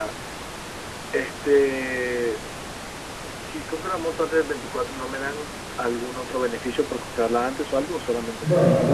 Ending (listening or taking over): taking over